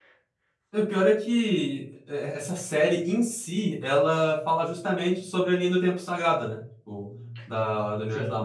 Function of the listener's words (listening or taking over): listening